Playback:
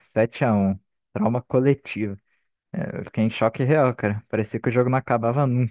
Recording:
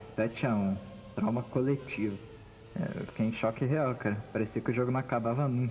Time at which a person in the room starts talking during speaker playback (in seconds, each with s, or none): none